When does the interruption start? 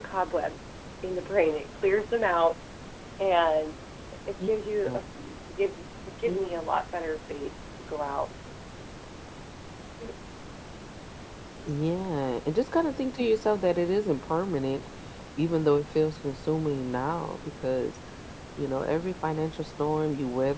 none

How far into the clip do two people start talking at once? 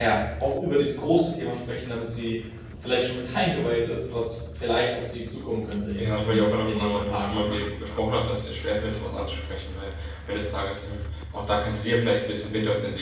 6.0 s

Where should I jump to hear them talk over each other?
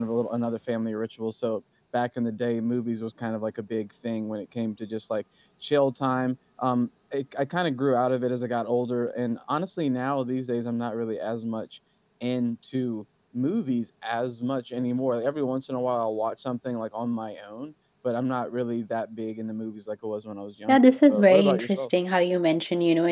20.7 s

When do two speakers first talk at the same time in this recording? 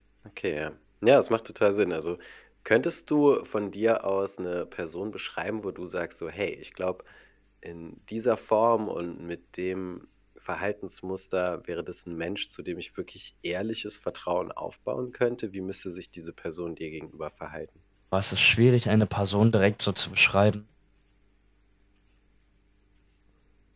none

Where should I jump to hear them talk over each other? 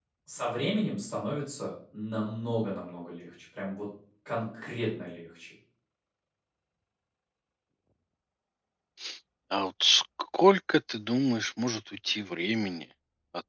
none

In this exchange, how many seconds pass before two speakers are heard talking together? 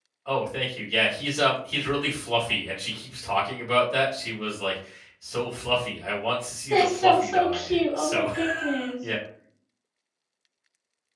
6.7 s

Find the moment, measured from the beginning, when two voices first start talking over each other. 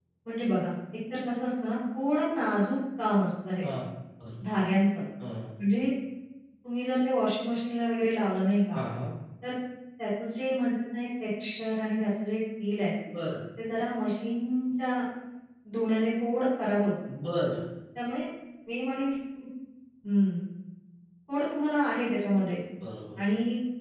none

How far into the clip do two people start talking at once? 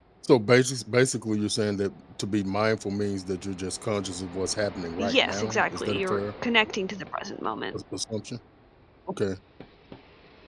5.0 s

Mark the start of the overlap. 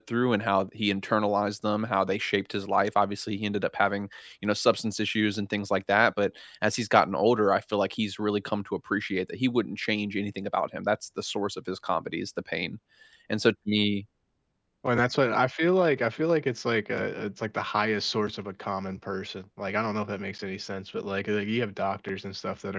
none

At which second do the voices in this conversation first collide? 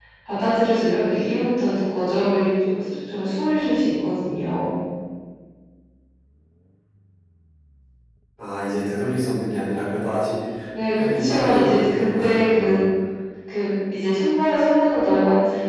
10.9 s

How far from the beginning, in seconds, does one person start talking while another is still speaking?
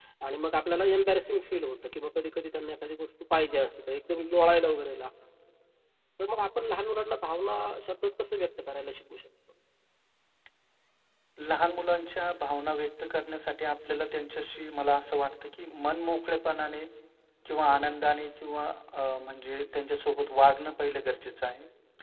none

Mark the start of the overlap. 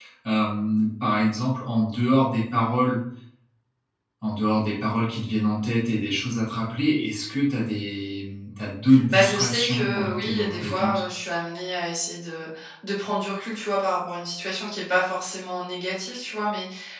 8.9 s

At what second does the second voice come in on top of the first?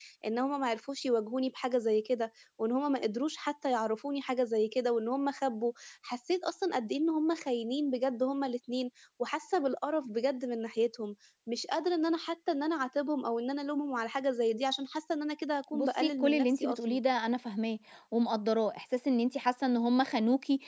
15.7 s

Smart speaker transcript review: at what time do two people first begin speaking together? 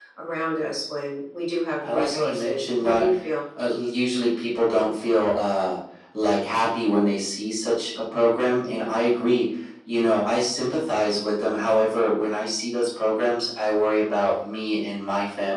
1.8 s

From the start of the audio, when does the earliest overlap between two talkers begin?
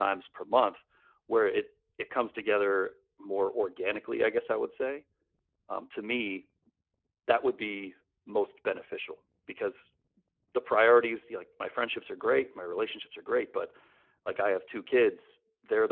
none

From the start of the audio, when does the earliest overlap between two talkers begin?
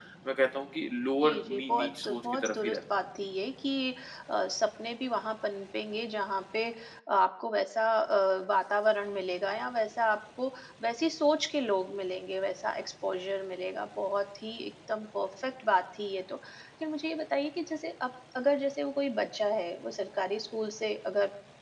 1.2 s

